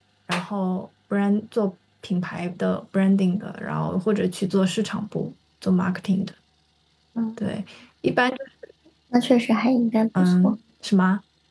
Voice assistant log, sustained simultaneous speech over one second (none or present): none